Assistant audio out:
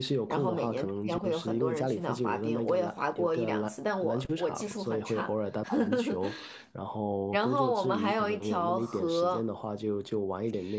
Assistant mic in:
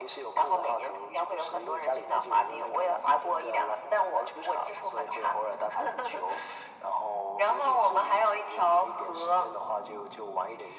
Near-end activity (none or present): none